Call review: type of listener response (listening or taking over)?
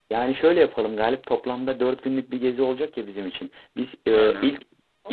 listening